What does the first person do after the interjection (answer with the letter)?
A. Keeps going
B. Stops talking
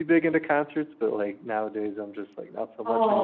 B